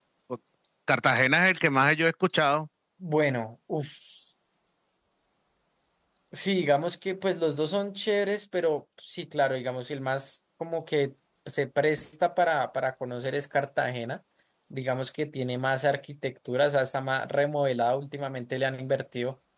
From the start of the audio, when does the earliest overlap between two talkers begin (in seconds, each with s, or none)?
none